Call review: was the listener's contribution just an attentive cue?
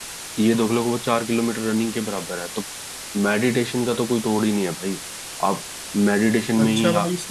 No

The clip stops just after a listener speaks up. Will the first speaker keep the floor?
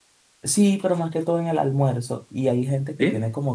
Yes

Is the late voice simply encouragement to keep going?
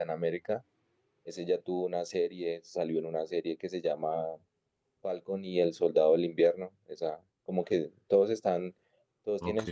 Yes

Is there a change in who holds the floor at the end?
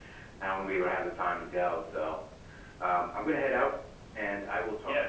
Yes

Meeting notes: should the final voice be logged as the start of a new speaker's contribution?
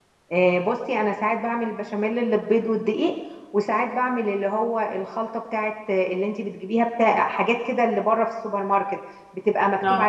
No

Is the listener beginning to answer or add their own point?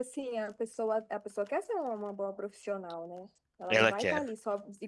No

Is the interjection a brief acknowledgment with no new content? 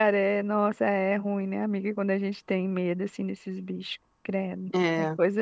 Yes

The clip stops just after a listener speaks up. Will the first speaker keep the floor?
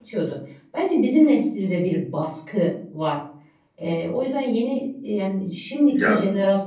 Yes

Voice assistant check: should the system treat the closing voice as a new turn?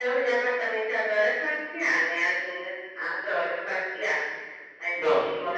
No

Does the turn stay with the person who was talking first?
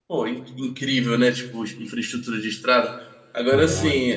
Yes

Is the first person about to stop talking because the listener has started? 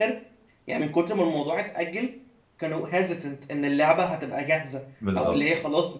No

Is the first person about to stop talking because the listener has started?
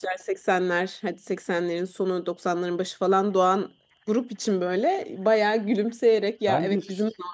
No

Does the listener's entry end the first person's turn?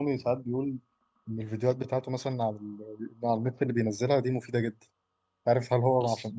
No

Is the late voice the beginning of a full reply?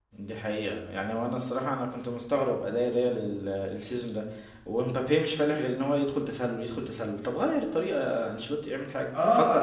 Yes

